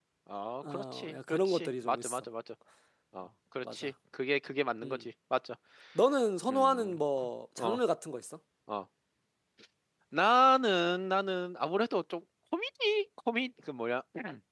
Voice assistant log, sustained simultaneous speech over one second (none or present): present